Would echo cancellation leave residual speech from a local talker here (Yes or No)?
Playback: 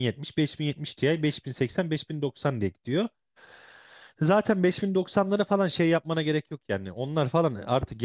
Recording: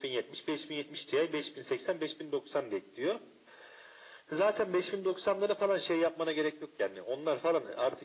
No